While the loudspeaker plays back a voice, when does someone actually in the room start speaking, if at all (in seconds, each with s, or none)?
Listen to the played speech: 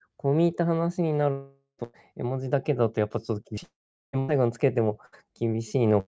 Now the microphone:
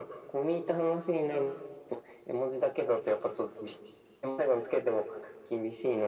none